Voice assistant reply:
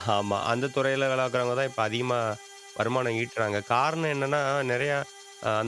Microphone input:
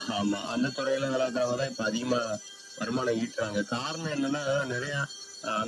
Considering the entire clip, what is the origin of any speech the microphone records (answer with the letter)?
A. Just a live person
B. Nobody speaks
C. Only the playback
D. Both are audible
C